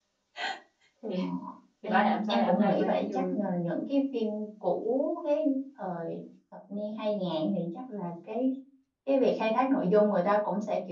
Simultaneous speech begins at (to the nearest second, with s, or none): 2 s